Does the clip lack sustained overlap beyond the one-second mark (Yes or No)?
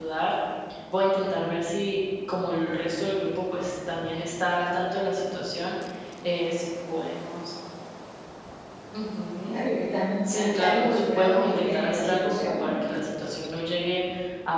No